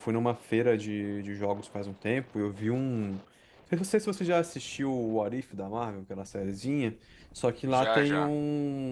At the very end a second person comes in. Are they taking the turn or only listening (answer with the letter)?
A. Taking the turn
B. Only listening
B